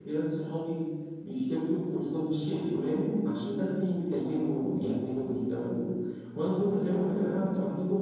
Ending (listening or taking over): listening